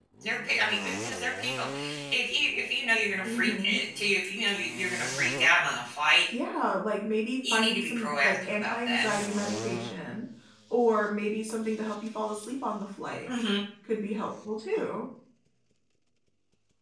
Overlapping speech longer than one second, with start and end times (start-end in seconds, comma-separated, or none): 7.5-9.0